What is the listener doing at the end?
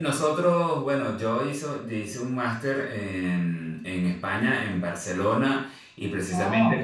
listening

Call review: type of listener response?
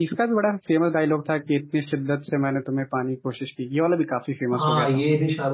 taking over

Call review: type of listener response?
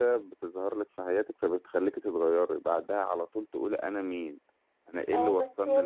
taking over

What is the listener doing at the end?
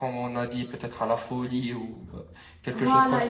taking over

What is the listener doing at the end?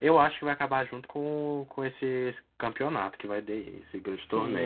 taking over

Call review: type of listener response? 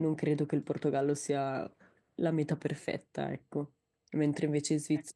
listening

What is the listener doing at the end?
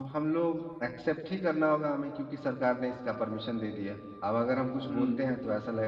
listening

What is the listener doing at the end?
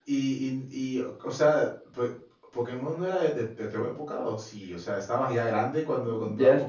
taking over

